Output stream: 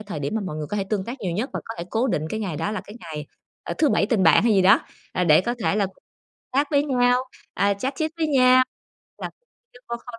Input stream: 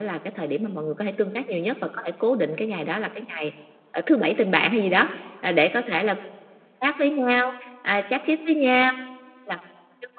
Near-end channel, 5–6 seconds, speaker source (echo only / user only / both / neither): echo only